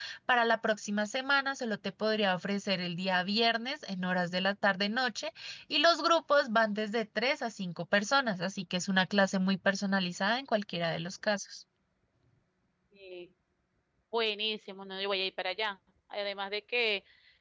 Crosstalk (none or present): none